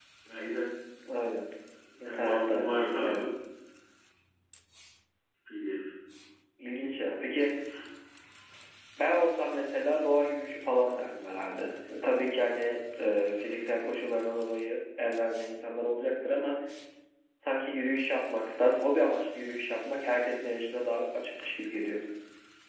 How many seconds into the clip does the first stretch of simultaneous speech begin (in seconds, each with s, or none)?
2.0 s